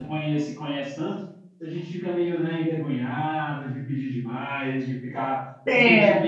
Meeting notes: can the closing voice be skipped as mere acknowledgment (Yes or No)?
Yes